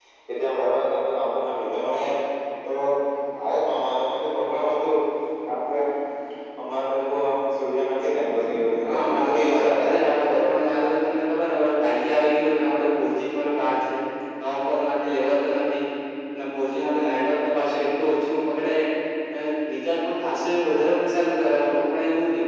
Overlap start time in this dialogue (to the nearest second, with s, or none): 9 s